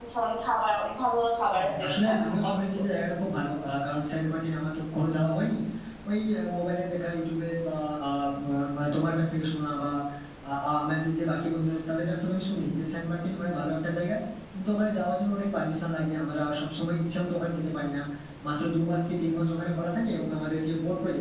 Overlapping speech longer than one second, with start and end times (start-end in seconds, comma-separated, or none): 1.5-2.8